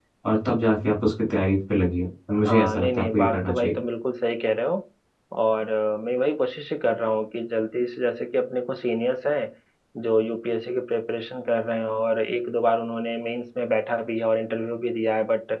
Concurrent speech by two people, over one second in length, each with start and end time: 2.4-3.8

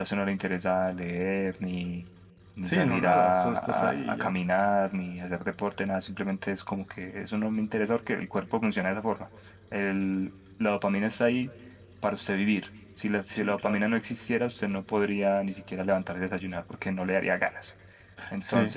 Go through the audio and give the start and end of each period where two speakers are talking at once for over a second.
2.6-4.3

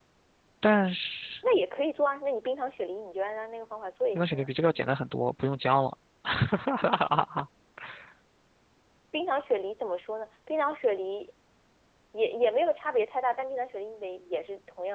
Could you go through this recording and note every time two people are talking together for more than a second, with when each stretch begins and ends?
none

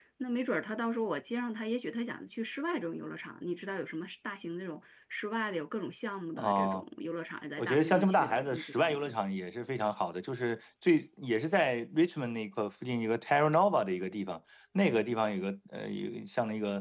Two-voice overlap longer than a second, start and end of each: 7.6-9.1

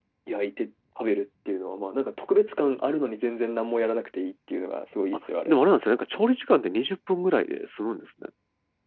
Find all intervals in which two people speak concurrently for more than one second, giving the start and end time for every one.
none

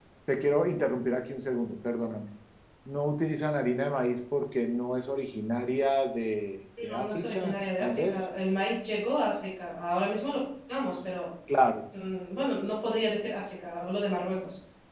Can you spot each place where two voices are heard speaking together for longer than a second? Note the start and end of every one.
6.9-8.2

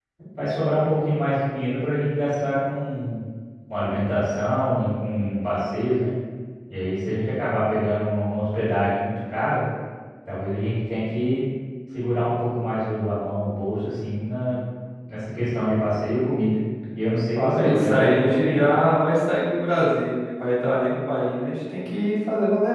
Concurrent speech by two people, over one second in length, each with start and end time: 17.4-18.7

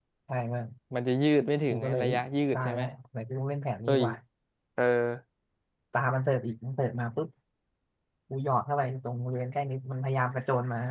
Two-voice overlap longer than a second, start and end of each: none

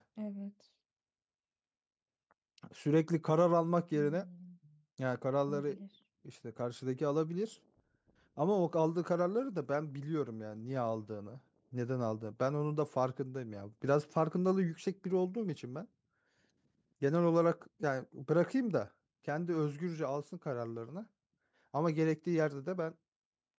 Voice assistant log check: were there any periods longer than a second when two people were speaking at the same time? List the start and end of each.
none

